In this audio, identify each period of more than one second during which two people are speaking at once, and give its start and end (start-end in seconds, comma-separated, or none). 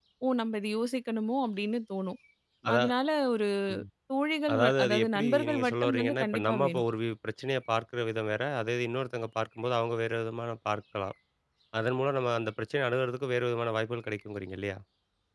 4.5-6.8